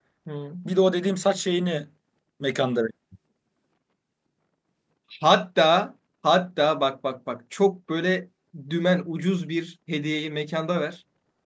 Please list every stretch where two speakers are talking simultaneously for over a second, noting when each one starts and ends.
none

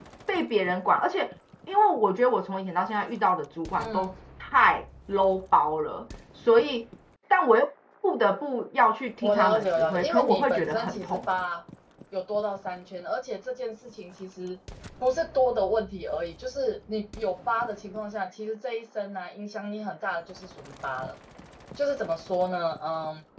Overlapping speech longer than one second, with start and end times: 9.2-11.3

